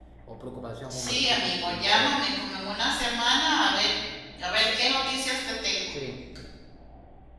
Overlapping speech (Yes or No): Yes